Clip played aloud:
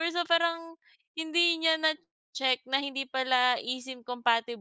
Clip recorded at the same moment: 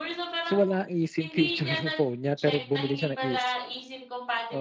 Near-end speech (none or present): present